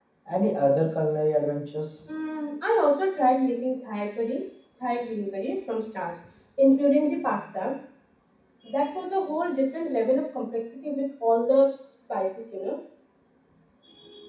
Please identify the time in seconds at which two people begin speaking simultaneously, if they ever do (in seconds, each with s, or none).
none